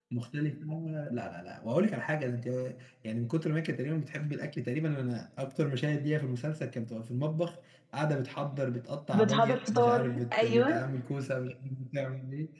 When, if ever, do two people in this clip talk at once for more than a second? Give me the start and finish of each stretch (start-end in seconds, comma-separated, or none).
9.2-10.8